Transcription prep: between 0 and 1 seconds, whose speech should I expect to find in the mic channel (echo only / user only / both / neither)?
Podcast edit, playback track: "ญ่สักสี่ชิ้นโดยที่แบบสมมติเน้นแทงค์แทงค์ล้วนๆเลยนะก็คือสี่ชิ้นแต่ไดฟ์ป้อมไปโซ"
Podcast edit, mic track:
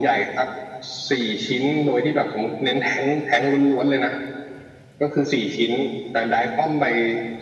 echo only